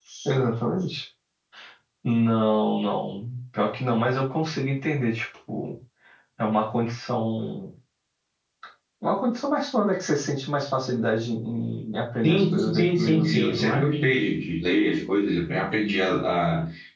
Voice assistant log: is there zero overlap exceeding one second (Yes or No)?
No